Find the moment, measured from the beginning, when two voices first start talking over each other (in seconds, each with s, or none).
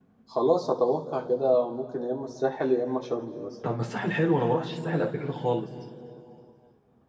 none